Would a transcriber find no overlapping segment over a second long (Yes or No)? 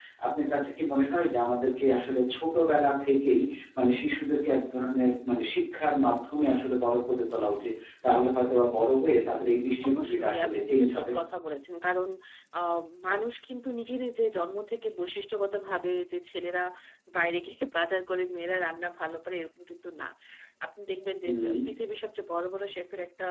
No